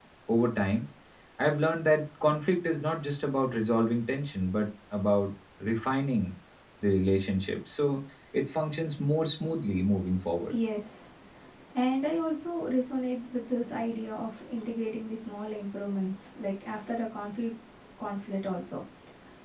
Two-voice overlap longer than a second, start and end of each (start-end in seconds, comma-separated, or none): none